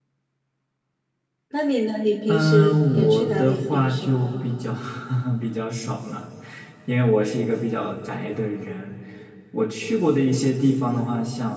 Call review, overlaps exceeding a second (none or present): present